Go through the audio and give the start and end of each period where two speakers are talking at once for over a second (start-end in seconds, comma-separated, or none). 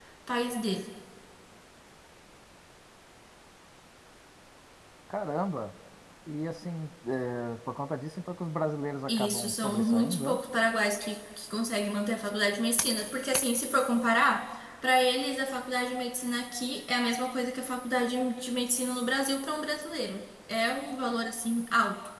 9.1-10.4